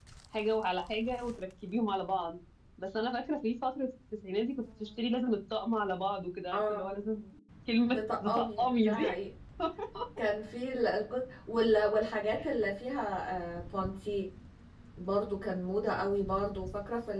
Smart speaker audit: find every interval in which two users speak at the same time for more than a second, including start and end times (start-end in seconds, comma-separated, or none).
7.9-9.1